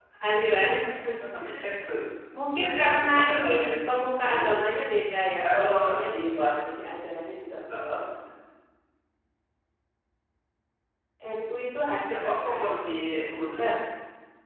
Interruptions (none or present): present